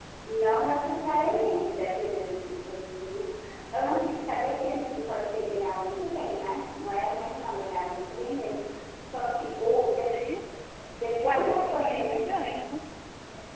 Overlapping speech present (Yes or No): Yes